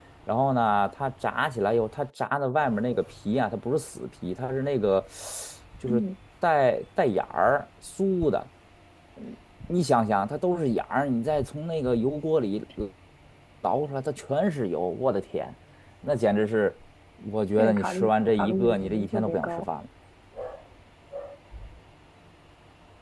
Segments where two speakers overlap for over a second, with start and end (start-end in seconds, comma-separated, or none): 17.6-19.6